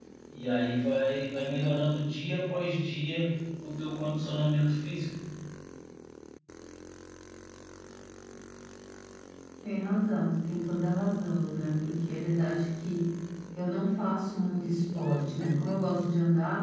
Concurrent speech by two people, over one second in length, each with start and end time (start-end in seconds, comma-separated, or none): none